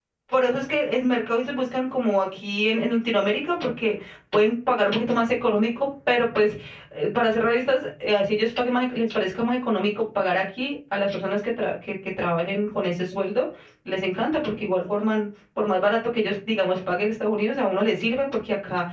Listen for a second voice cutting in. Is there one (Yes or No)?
No